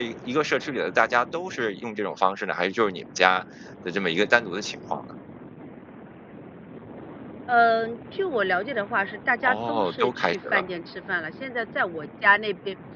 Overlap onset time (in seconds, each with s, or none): 9.4 s